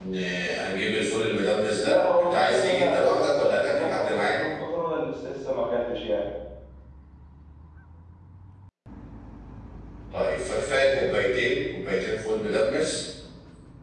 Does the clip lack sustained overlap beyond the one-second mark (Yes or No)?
No